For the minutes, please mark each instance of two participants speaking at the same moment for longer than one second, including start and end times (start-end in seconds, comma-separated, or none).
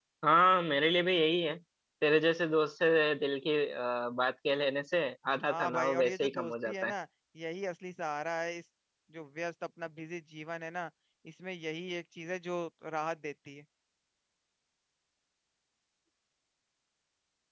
5.5-6.9